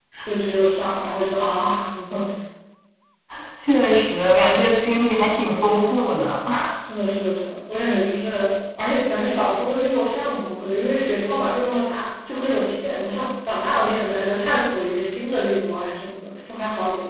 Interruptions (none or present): none